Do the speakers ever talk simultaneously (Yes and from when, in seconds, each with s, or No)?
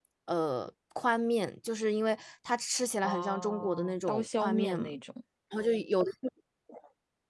Yes, from 3.0 s